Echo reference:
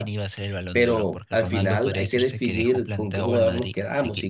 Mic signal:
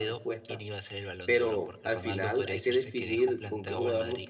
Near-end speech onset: none

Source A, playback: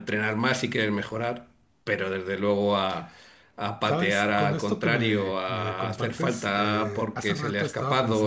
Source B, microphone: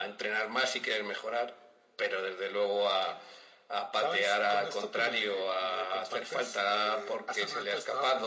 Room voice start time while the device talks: none

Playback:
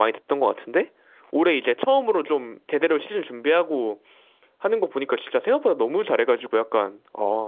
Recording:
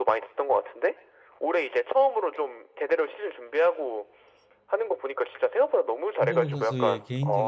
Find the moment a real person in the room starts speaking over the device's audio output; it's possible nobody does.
6.2 s

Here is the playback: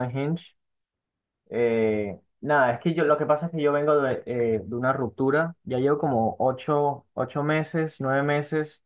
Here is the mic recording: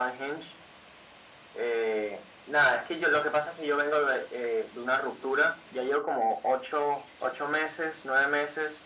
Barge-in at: none

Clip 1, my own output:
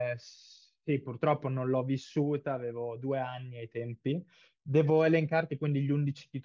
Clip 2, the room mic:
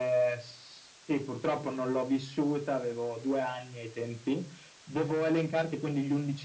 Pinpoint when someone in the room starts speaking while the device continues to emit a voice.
none

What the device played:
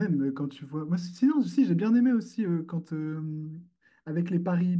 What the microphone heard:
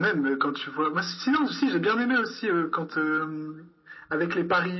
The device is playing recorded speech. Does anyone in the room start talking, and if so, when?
none

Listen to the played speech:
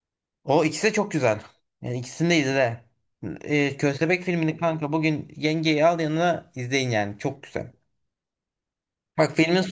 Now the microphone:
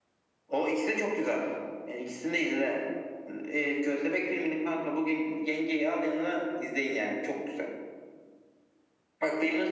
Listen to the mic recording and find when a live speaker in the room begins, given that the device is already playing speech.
none

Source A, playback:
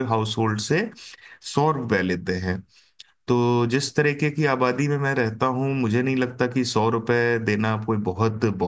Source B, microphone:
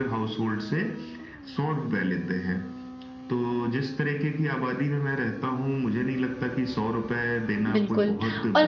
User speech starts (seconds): 7.7 s

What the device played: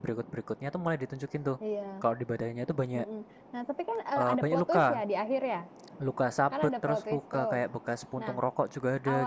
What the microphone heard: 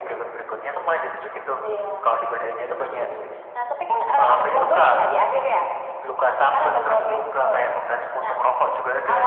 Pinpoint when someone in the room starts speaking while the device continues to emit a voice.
none

